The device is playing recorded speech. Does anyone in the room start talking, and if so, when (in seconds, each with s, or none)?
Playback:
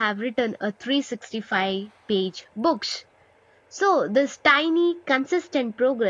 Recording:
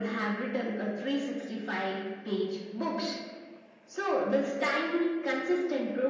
none